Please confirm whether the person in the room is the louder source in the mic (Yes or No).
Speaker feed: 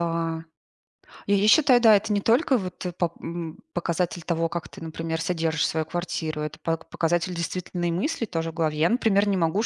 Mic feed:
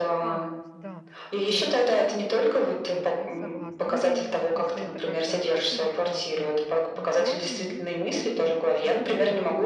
No